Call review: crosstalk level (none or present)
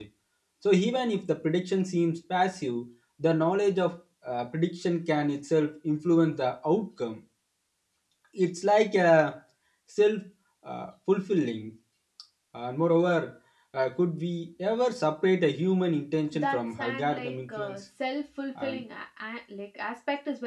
present